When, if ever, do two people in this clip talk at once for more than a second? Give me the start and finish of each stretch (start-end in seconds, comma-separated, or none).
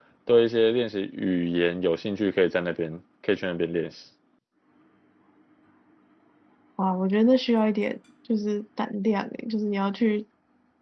none